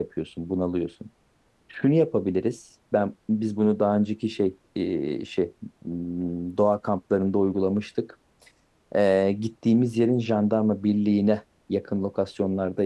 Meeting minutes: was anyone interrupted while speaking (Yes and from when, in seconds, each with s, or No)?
No